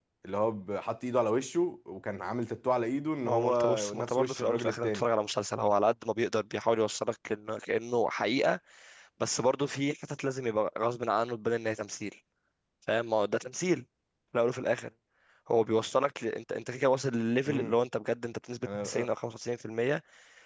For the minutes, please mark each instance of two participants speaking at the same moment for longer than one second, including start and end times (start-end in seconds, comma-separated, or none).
3.2-5.1